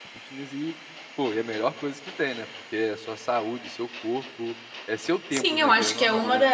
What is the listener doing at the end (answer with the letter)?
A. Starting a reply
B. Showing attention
A